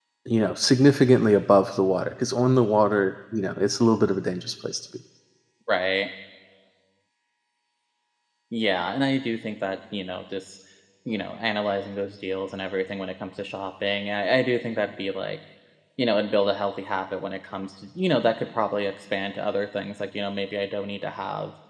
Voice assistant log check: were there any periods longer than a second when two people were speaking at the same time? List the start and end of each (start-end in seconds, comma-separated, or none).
none